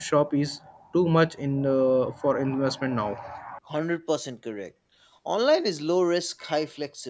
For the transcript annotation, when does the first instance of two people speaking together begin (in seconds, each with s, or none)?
none